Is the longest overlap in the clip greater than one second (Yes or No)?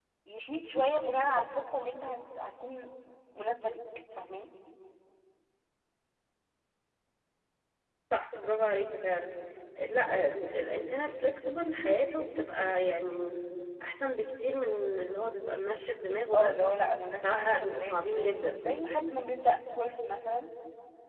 Yes